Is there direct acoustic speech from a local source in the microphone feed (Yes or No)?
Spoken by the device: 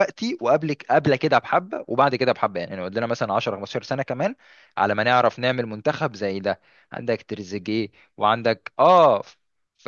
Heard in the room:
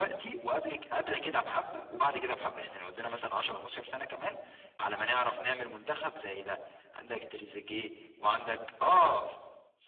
No